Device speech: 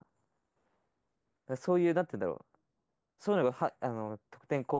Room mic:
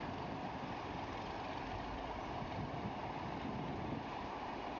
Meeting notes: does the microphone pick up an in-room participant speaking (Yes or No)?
No